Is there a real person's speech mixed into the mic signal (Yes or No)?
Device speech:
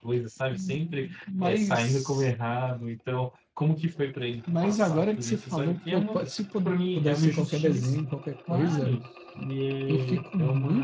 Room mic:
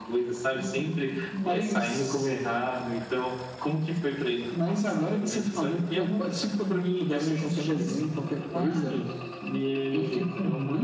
No